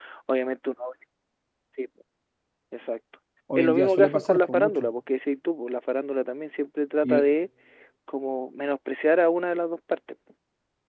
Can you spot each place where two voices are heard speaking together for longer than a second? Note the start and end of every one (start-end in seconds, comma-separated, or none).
3.5-4.9